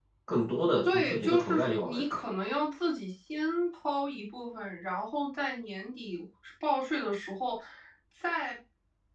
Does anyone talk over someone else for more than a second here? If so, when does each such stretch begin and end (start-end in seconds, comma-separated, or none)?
0.8-2.0